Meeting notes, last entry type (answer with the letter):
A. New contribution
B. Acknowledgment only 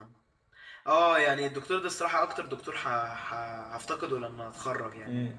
B